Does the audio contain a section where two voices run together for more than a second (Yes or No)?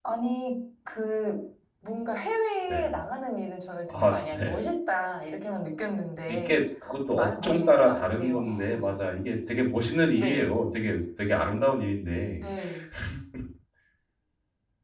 Yes